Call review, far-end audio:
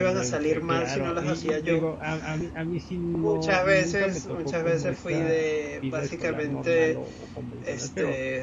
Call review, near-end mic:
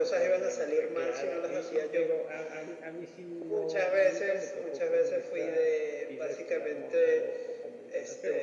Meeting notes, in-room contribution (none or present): none